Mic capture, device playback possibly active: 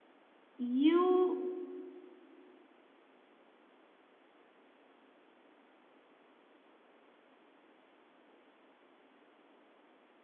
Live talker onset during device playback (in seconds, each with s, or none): 0.6 s